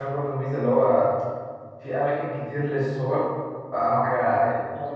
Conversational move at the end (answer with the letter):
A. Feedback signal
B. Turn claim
A